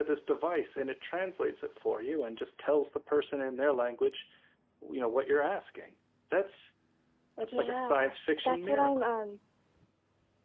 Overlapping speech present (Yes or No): Yes